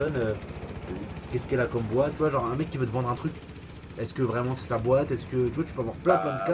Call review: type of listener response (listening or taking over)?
taking over